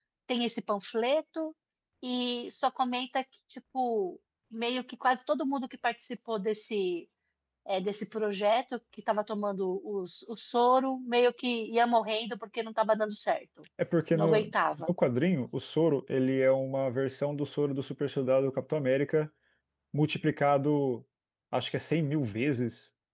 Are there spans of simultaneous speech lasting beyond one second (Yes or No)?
No